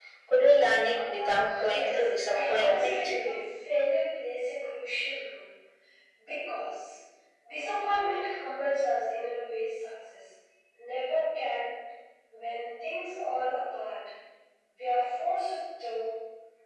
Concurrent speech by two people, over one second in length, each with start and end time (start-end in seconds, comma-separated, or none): 1.6-3.1